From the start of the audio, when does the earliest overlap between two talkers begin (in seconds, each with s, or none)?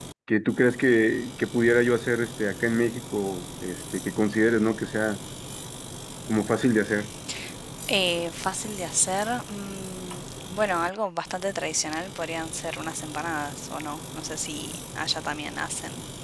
none